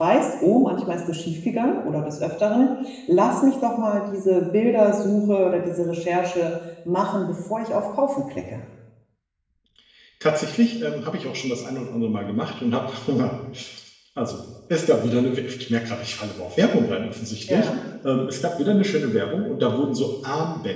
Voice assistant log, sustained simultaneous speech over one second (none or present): none